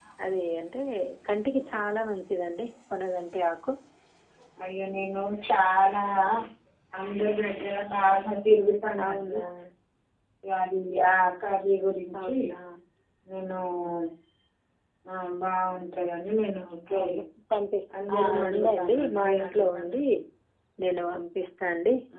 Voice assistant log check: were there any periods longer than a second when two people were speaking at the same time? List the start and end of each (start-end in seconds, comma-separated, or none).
18.1-20.0